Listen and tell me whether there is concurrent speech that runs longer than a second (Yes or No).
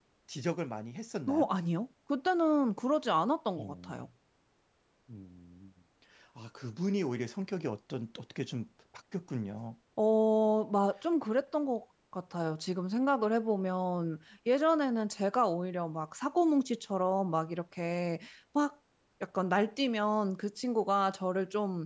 No